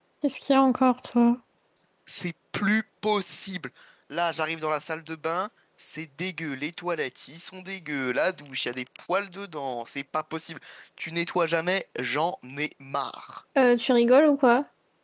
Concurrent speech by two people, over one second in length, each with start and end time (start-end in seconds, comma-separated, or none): none